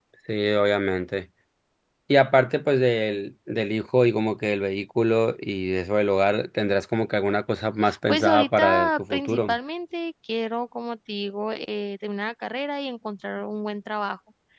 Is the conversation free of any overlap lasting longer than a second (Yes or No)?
No